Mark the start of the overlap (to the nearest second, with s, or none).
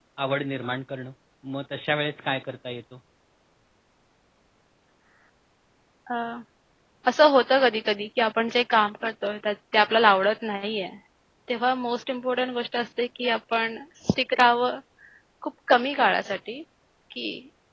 none